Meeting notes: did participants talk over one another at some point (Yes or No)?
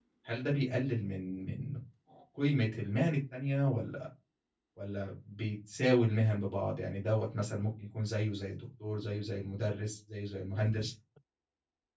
No